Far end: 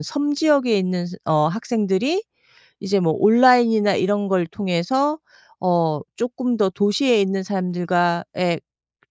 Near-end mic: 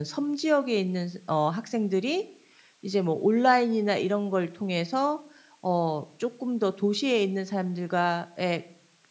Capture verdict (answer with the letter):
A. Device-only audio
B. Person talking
A